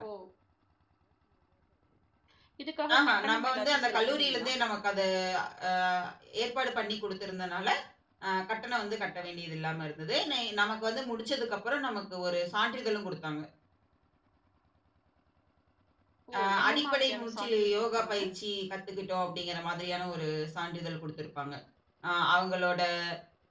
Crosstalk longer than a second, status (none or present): present